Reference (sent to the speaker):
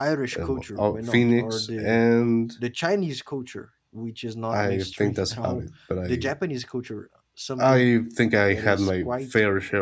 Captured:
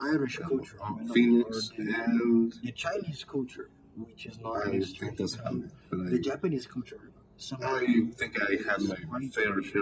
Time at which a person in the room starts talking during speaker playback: none

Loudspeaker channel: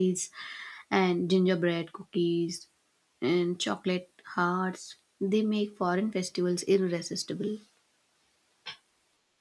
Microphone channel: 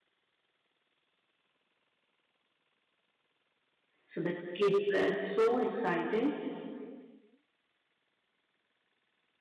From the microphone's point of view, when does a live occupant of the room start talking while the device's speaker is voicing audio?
4.0 s

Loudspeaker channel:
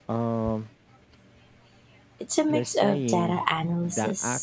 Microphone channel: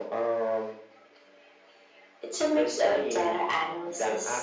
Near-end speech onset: none

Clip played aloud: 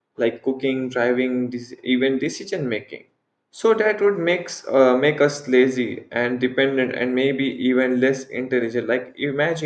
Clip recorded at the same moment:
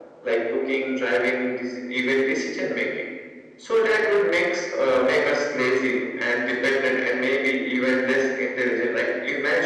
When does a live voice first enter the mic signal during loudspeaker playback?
none

